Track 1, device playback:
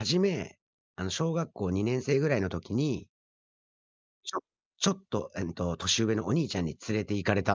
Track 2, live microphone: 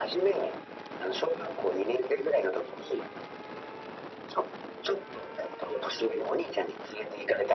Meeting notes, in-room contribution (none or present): none